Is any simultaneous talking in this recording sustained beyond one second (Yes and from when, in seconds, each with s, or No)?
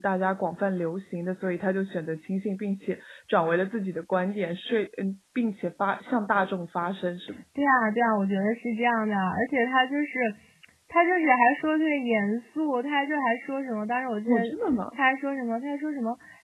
No